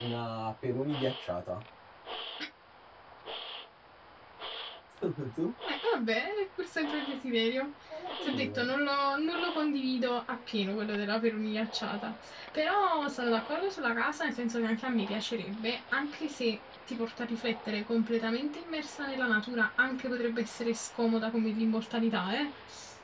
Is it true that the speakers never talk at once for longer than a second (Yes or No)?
Yes